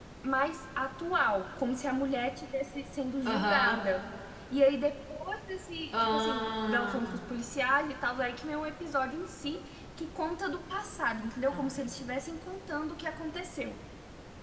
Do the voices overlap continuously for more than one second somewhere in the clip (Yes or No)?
Yes